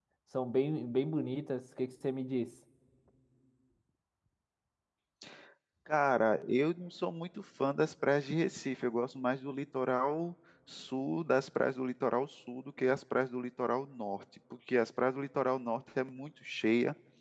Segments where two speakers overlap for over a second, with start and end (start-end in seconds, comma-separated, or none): none